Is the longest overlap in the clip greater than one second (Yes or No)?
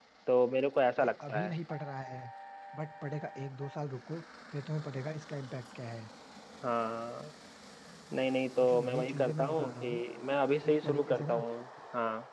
Yes